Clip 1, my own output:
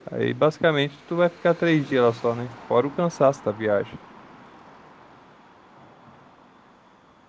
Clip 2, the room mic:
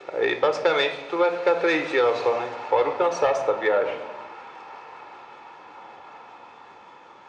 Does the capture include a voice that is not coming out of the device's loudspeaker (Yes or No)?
No